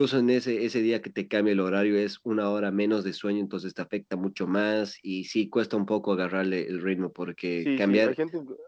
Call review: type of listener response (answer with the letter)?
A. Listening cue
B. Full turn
B